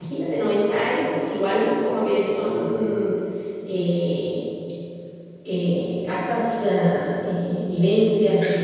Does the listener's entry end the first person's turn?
No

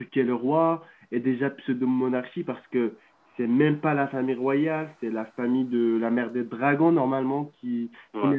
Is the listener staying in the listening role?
Yes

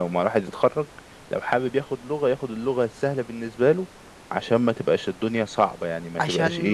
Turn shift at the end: Yes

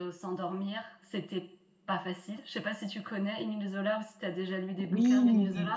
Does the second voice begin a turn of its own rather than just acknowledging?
Yes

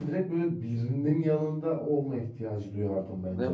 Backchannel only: No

